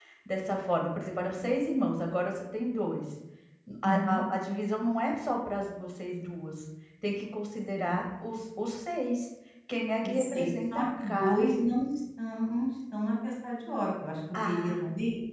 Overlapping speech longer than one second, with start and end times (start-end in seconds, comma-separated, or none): 10.0-11.4